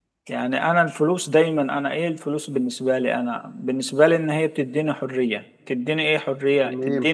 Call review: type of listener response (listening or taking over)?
listening